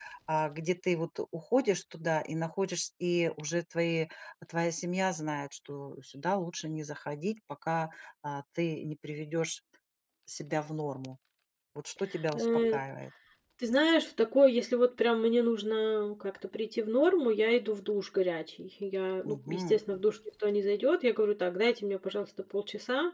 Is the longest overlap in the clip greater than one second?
No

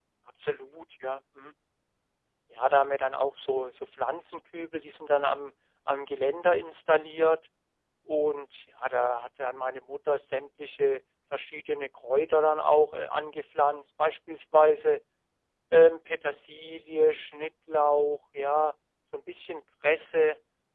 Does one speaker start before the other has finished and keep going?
No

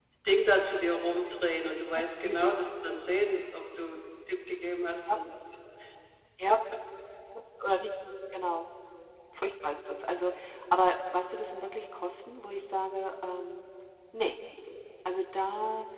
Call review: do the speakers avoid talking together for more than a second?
Yes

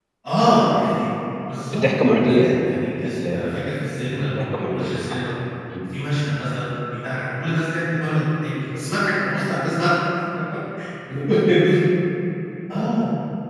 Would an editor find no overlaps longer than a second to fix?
No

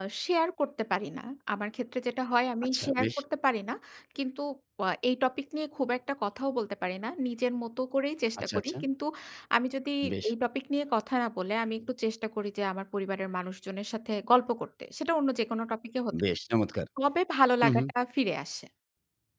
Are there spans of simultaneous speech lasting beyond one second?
No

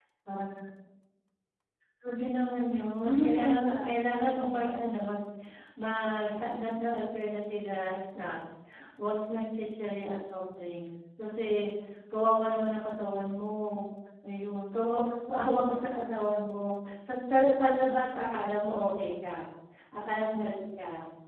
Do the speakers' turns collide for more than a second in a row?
Yes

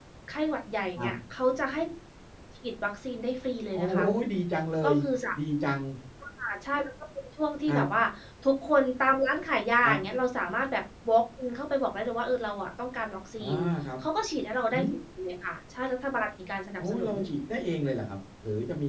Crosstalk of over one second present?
No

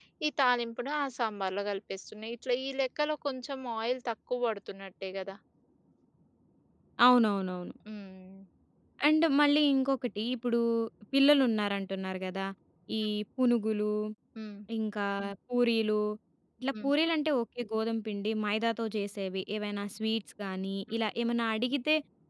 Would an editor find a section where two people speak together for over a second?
No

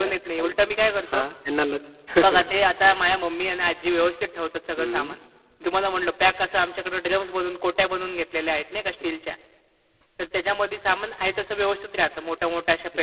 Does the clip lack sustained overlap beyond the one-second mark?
Yes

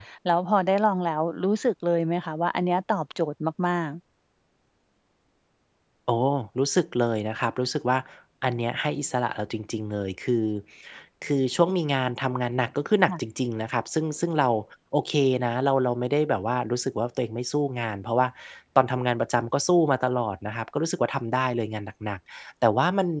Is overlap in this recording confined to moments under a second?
Yes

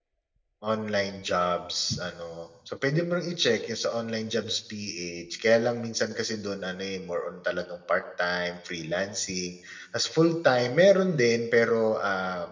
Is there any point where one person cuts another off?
No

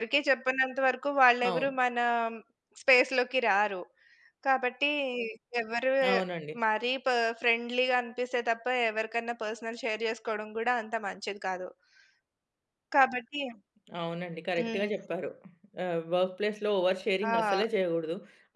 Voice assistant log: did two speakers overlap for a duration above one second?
No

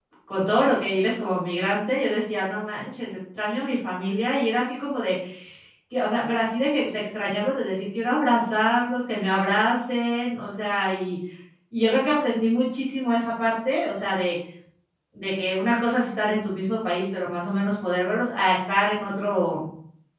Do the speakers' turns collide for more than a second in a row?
No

